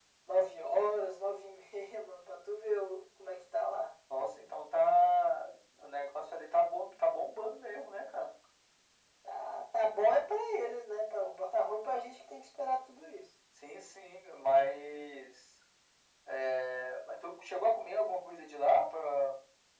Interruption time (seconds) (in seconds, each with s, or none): none